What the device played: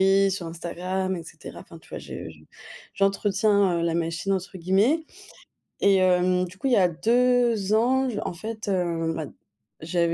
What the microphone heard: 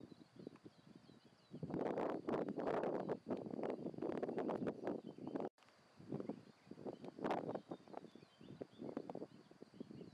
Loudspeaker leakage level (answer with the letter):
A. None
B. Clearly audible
A